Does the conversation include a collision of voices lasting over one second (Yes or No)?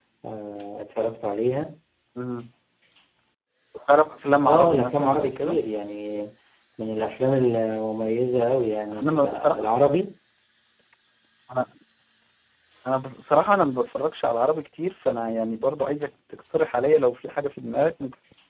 Yes